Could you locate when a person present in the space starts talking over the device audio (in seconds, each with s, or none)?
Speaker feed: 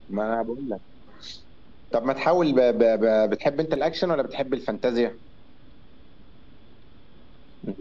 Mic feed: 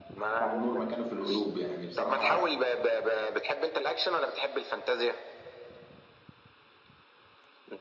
0.3 s